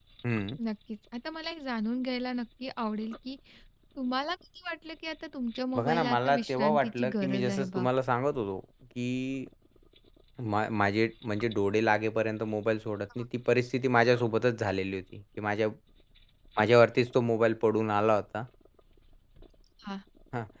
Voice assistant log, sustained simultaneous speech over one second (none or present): present